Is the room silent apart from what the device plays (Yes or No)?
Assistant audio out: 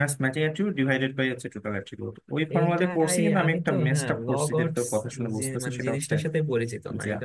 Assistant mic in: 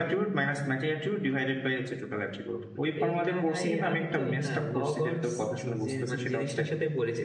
Yes